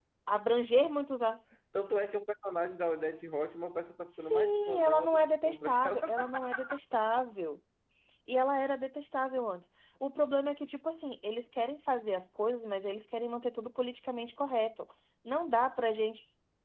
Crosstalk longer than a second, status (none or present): present